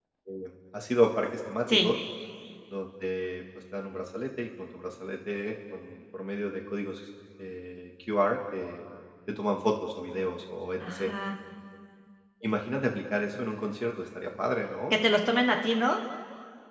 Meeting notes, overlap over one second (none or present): none